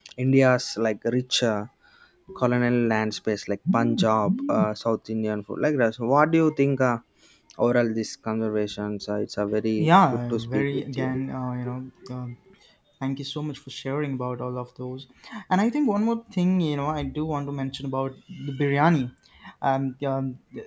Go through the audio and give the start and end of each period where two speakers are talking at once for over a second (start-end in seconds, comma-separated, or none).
9.8-11.1